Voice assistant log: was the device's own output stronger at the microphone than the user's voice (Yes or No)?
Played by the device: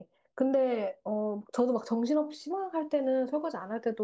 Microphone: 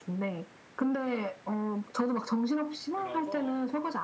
Yes